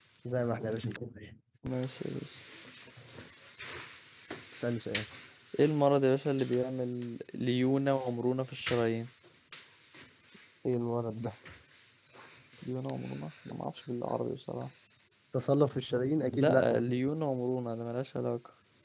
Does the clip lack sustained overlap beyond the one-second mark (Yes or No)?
Yes